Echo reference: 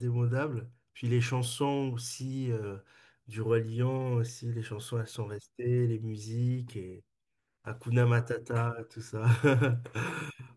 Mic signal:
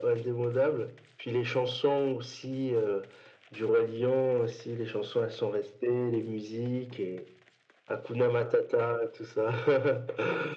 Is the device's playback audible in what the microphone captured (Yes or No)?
Yes